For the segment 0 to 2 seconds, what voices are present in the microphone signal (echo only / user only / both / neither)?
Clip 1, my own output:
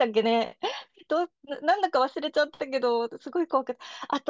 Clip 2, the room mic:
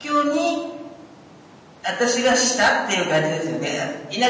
user only